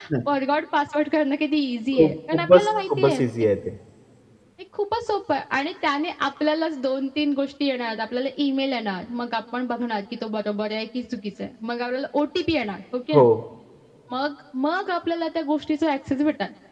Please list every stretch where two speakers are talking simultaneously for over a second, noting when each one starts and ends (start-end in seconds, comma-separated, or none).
1.9-3.2